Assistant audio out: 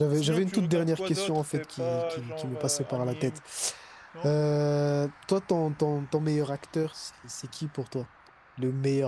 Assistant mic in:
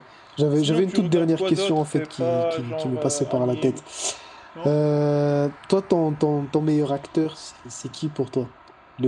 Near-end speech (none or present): none